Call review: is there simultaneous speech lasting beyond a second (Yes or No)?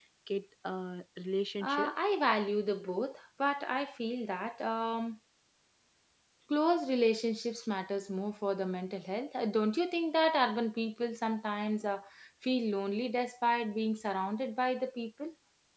No